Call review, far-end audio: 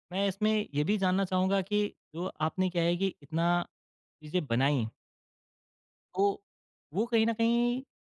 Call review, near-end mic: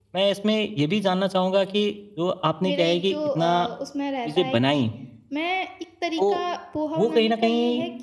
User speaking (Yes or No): Yes